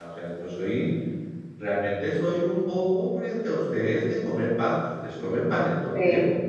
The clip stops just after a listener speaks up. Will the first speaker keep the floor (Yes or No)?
No